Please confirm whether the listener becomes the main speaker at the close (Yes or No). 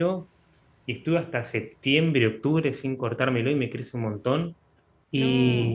No